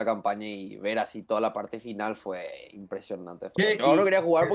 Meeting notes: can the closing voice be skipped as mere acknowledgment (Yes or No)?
Yes